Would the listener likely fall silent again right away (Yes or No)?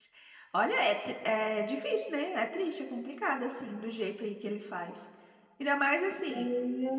Yes